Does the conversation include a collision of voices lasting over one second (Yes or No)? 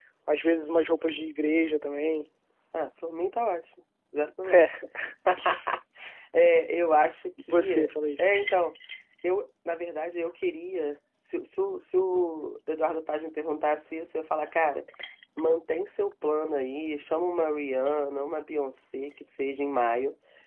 No